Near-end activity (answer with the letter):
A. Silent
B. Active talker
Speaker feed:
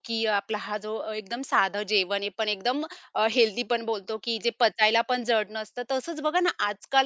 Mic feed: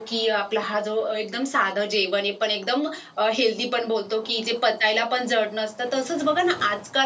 A